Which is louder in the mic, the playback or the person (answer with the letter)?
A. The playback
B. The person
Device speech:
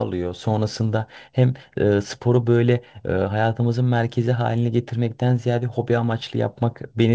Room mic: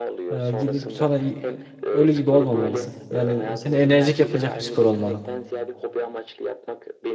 B